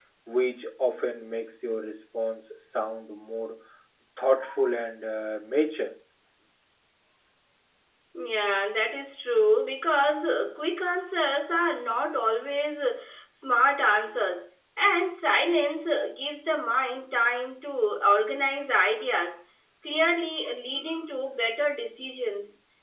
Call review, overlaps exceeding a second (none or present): none